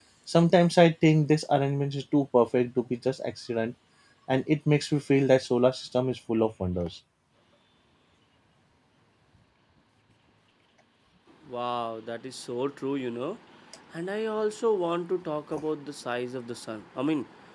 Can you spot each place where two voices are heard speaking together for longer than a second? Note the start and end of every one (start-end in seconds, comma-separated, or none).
none